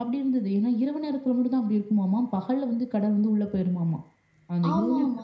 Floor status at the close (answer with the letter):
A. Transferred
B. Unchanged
A